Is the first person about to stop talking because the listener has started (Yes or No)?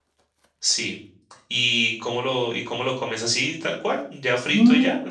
Yes